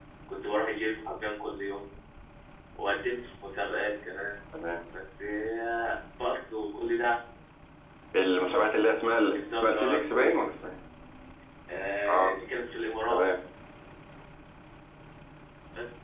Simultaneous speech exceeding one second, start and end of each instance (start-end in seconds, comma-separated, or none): 9.2-10.4